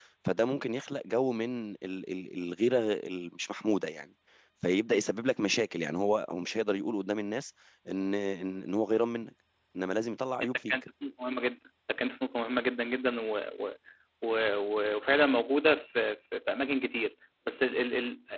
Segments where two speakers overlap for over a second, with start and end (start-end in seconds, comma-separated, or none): none